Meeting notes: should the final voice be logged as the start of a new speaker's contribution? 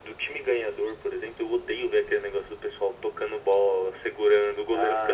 Yes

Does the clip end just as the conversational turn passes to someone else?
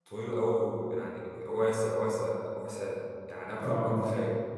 Yes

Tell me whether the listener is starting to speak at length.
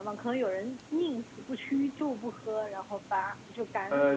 Yes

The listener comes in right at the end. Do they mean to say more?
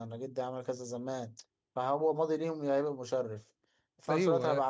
No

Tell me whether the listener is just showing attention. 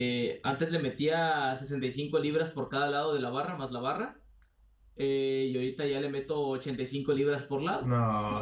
No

